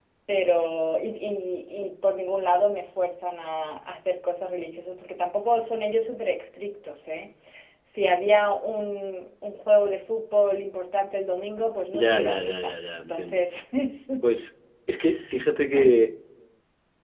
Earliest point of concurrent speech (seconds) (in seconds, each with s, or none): 11.9 s